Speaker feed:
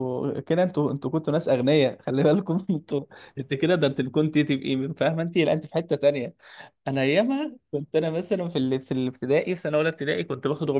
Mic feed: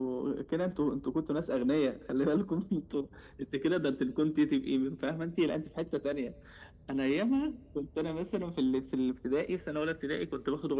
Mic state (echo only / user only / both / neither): echo only